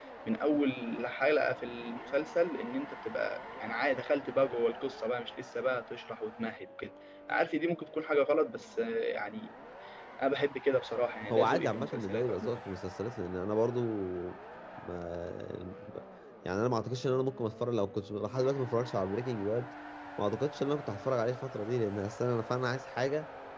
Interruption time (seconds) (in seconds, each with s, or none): 11.3 s